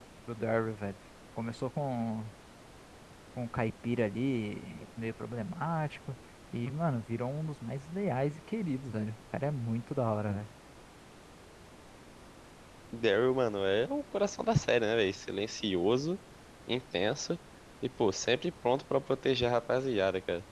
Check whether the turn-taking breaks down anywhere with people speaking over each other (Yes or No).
No